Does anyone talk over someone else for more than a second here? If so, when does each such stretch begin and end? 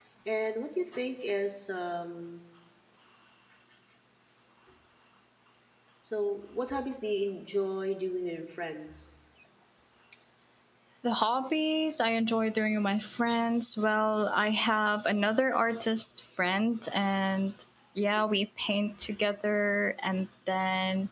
none

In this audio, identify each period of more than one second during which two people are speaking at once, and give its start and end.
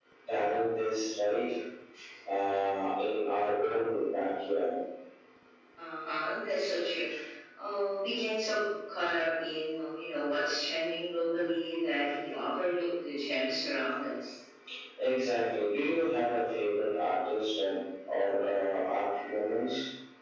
none

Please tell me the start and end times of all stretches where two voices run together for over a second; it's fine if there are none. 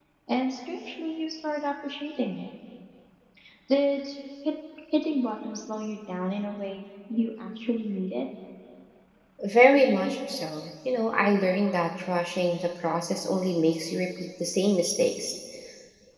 none

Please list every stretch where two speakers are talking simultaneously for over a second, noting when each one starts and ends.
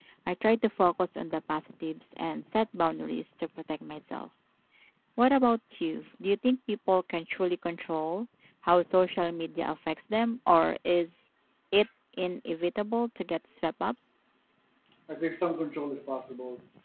none

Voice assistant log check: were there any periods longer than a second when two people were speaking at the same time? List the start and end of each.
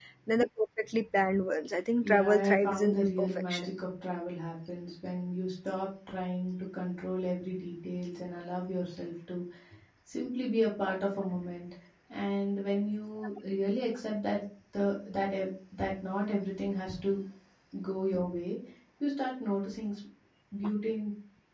2.0-3.7

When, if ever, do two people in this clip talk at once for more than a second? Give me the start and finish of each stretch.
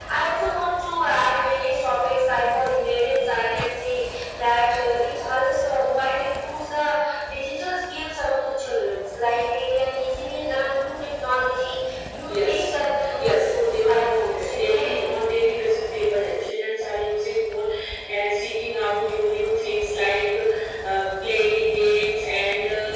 13.2-14.9

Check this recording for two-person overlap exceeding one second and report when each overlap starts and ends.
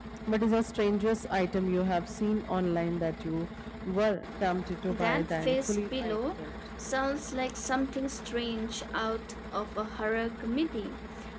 4.9-6.2

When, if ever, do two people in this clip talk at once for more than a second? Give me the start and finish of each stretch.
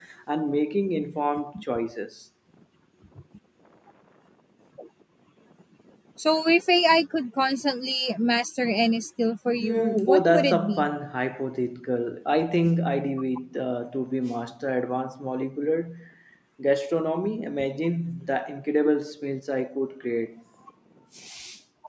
9.6-10.9

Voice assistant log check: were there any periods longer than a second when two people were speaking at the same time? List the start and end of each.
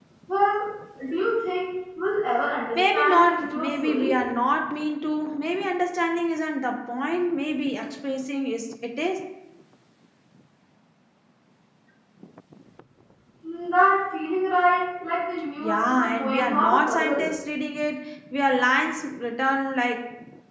2.8-4.2, 15.6-17.3

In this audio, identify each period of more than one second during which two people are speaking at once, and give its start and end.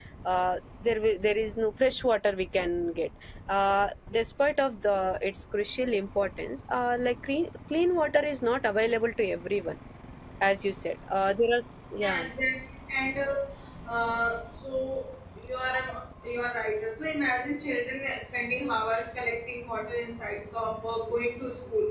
none

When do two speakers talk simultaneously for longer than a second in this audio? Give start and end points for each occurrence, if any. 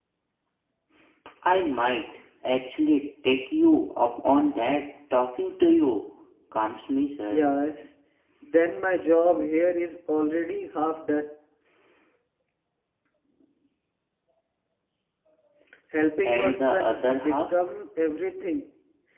16.2-17.7

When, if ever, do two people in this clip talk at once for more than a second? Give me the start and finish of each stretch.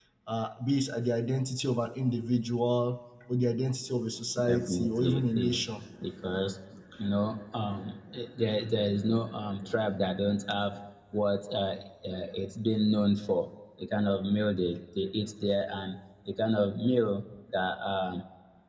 4.4-5.9

